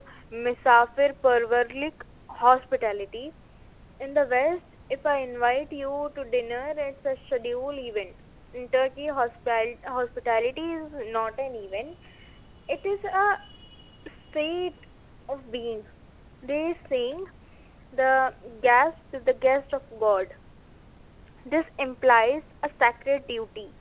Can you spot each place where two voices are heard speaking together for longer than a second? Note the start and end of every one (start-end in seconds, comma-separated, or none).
none